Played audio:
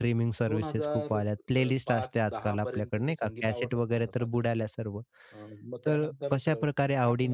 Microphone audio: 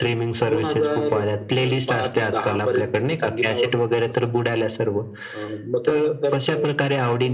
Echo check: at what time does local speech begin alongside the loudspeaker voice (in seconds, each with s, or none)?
none